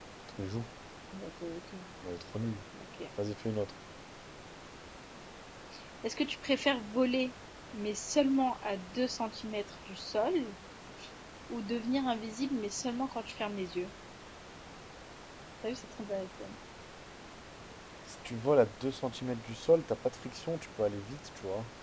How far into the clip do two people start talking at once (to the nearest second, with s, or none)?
none